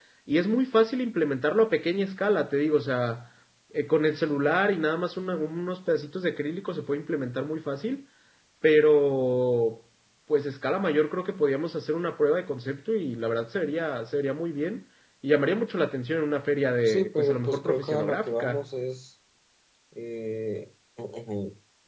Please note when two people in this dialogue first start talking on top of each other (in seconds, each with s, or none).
16.8 s